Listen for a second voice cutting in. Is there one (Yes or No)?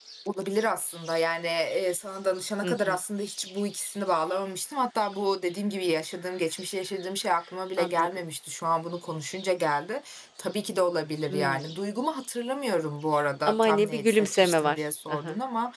Yes